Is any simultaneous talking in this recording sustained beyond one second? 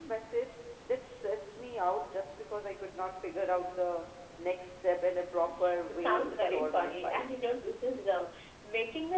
Yes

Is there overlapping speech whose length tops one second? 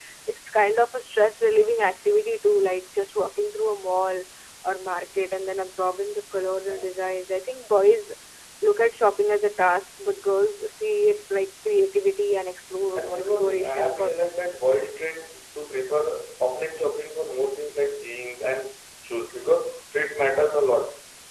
Yes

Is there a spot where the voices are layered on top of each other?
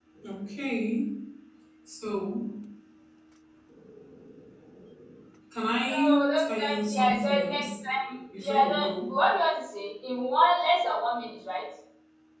Yes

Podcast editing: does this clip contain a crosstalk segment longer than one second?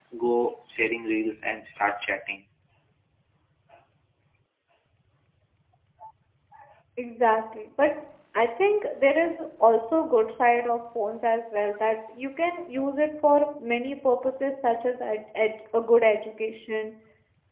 No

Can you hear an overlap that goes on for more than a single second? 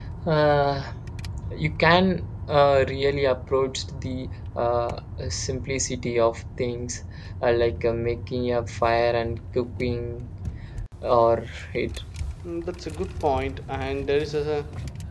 No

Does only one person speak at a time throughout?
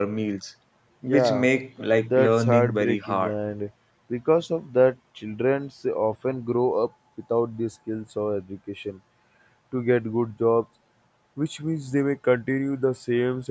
No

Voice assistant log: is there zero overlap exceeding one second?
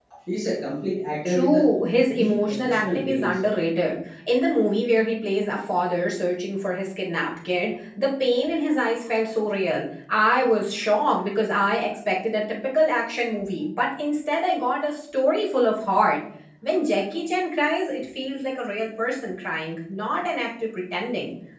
No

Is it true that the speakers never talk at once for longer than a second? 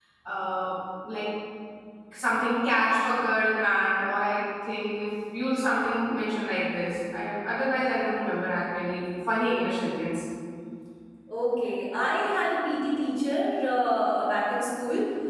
Yes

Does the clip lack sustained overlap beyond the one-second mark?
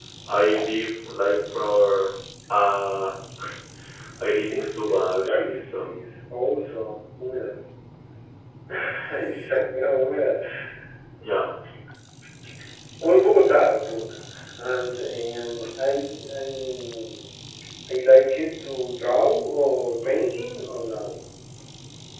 No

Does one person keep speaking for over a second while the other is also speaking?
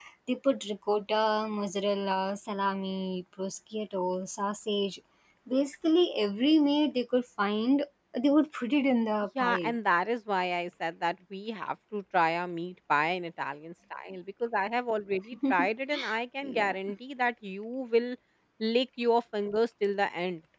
No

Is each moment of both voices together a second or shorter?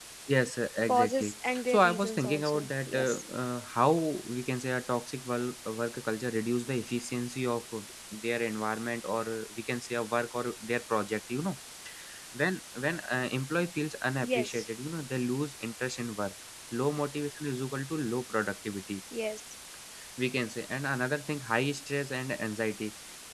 No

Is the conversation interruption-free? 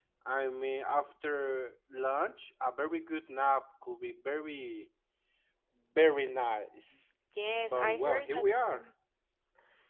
No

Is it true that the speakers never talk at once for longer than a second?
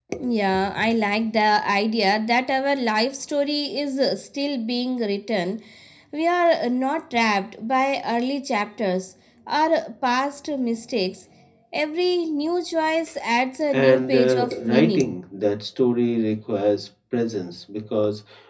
No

